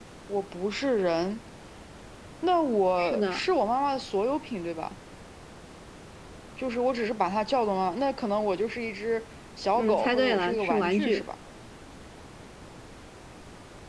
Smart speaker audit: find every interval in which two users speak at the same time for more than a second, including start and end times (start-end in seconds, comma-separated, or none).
9.8-11.2